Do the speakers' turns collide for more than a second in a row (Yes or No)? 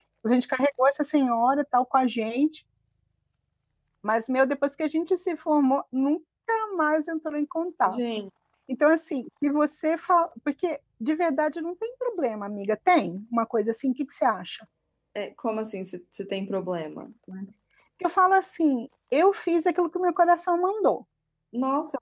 No